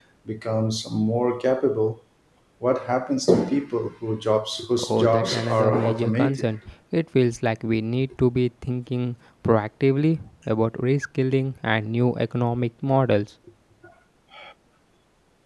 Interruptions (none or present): present